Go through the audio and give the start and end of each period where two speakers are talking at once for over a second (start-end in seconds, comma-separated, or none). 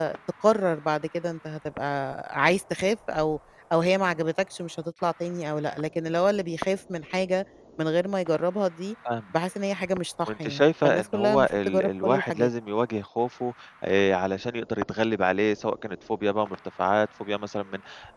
10.3-12.5